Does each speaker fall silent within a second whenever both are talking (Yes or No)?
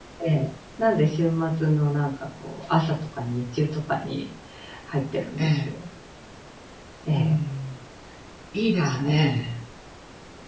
Yes